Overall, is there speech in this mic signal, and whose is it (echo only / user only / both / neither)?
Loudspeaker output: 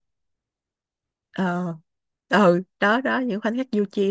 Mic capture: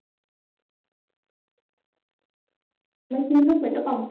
user only